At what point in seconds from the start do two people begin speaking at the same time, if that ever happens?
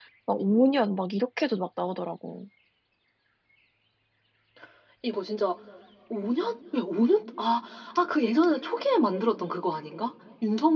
none

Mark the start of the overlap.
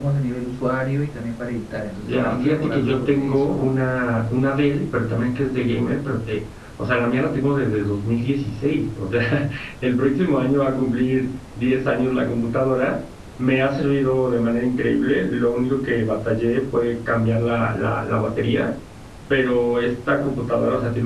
2 s

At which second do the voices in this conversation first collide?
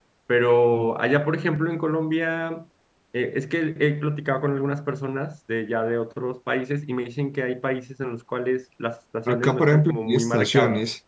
9 s

